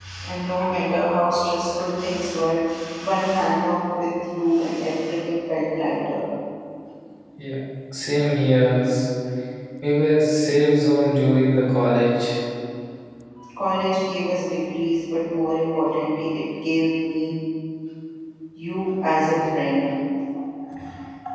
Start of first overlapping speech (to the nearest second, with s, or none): none